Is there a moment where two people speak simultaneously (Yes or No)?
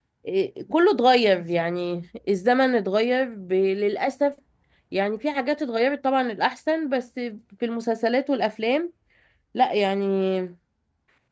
No